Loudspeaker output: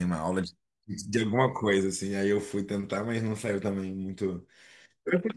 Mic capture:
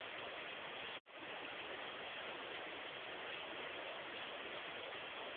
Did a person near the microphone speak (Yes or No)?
No